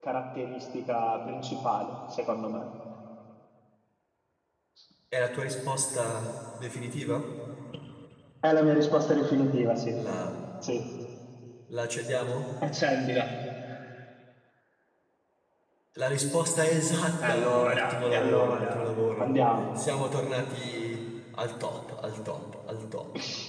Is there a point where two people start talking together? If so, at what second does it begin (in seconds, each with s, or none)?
17.2 s